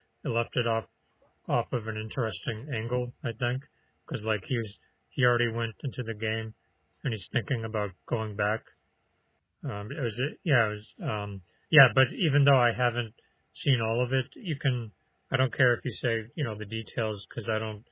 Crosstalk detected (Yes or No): No